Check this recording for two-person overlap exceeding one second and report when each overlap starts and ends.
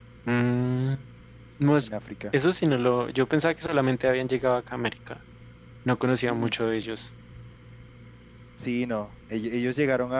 none

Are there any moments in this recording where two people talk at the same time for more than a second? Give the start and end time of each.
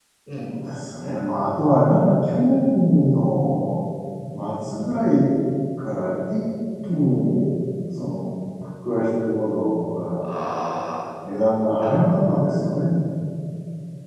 none

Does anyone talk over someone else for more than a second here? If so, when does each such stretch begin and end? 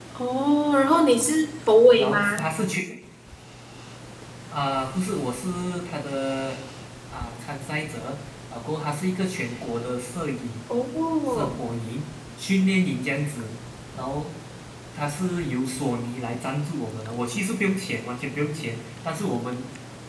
none

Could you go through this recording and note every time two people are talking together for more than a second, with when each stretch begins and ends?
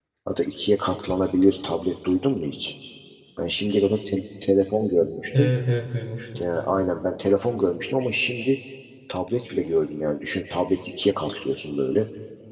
none

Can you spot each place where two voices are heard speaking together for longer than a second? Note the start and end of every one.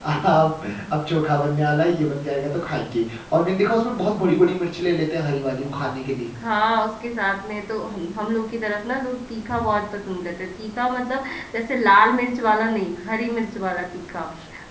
none

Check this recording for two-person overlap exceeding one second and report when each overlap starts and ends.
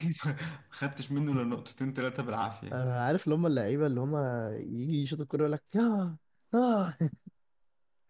none

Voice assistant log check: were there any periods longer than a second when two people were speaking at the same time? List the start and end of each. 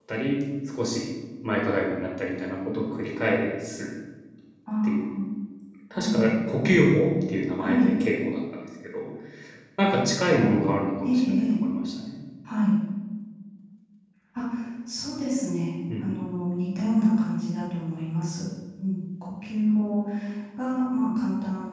none

